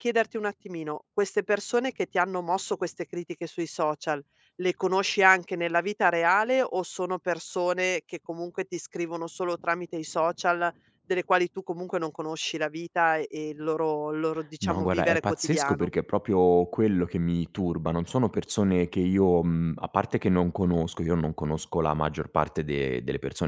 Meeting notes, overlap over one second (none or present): present